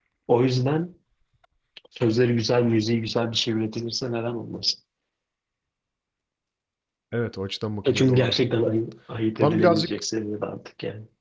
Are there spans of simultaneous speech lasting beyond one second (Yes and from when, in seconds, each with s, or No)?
No